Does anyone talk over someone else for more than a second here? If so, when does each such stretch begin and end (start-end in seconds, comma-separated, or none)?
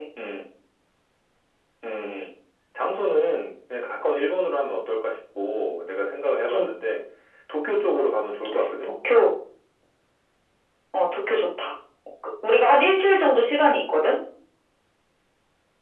none